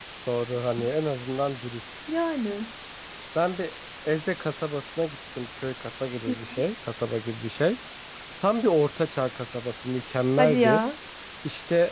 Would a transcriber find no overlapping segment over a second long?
Yes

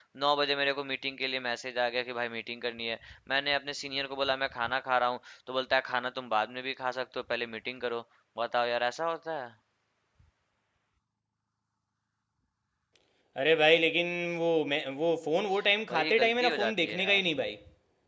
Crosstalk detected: Yes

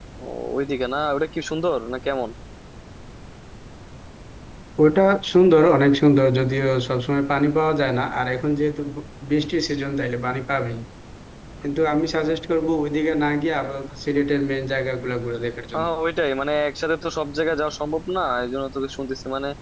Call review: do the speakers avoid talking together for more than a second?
Yes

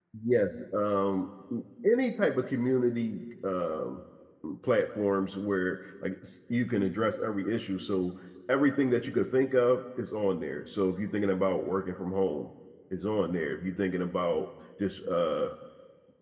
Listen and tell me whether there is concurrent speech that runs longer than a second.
No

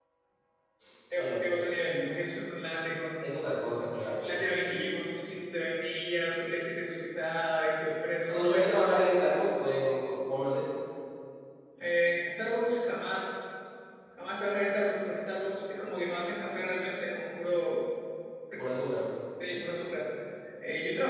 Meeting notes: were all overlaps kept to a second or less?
Yes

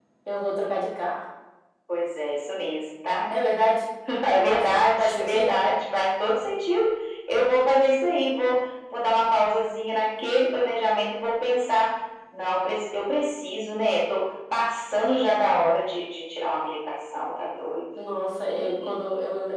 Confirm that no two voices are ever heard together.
No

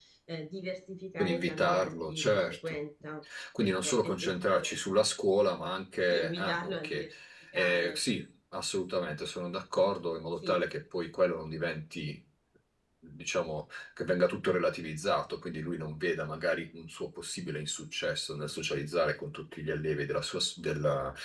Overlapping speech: Yes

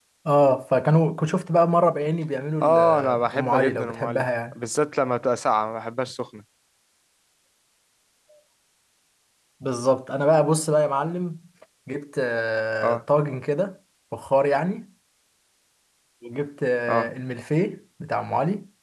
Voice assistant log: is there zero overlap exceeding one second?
No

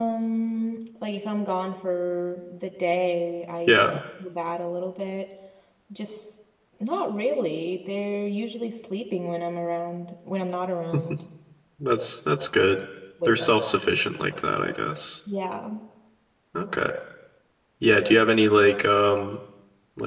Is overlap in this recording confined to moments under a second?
Yes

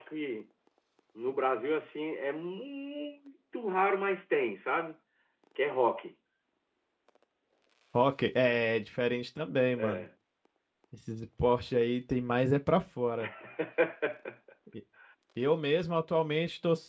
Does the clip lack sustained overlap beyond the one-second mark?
Yes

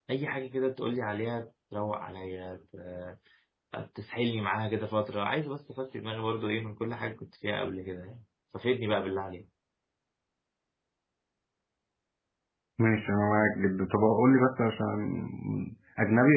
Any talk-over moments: No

